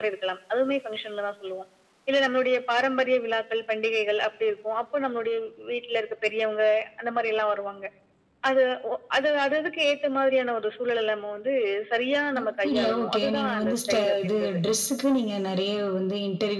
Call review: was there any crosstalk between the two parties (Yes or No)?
Yes